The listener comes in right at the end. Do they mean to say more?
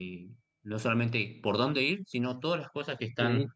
No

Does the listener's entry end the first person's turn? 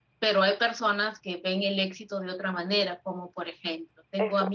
No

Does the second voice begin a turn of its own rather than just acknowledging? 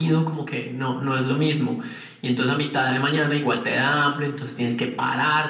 No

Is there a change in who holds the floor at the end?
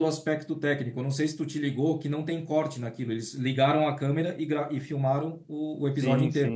Yes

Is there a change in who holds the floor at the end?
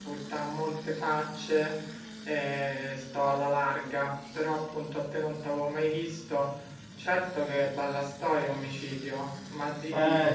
Yes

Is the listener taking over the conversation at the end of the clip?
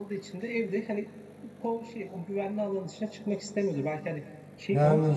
Yes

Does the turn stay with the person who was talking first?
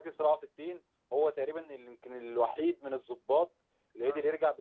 Yes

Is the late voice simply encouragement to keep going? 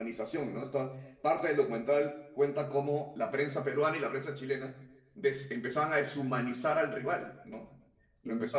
Yes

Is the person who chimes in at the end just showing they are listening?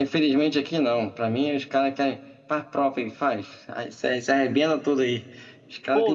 No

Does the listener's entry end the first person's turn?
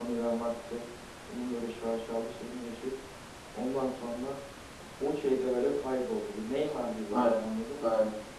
Yes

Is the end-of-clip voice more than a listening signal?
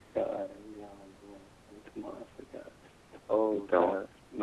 No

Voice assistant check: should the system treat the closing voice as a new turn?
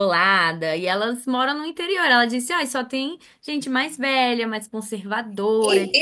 Yes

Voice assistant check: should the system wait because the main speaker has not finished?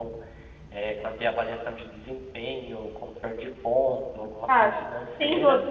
No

